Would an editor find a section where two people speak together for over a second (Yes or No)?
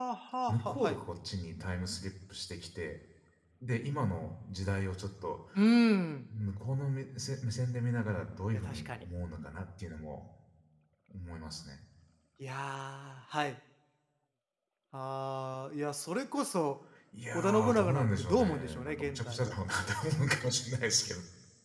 Yes